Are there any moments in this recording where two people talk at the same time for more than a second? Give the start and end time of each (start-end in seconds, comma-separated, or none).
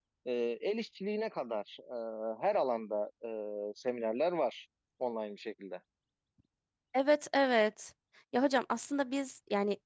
none